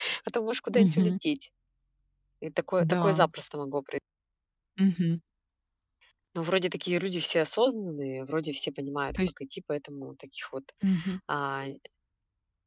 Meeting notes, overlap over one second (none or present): none